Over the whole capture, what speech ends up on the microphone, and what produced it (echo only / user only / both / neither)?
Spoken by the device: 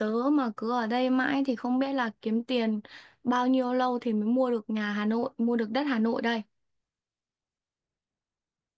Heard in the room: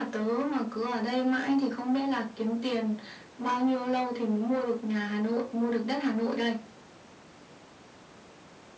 echo only